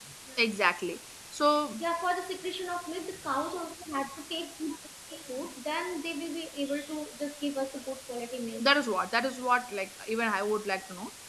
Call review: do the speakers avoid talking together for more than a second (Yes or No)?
Yes